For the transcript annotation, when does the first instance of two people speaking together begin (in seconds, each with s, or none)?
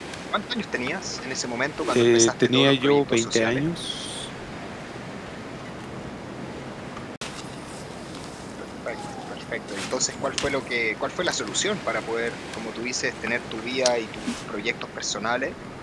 1.8 s